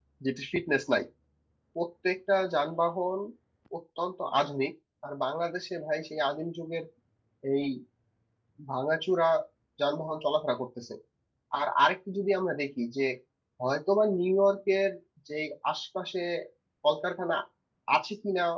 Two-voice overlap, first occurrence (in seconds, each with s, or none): none